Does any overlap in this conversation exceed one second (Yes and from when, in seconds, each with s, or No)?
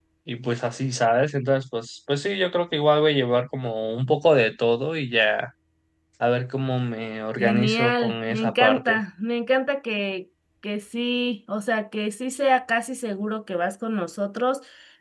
Yes, from 7.4 s